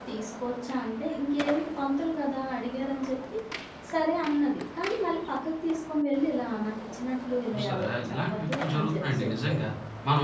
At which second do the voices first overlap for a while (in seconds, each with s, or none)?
7.5 s